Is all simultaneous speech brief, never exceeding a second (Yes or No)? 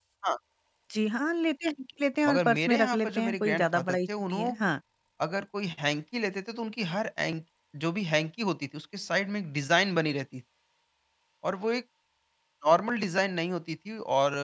No